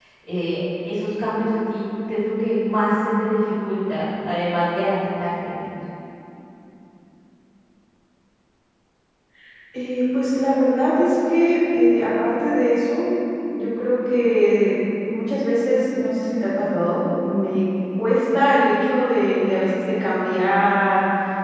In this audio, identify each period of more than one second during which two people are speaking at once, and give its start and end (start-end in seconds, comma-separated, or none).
none